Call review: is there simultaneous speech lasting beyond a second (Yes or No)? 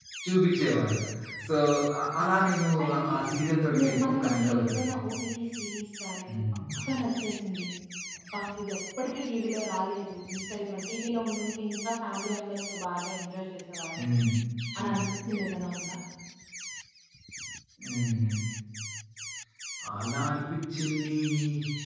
Yes